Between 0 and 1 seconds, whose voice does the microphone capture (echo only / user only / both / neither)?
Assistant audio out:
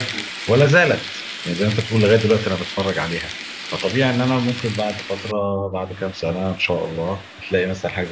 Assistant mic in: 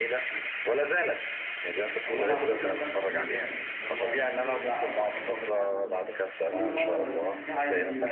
echo only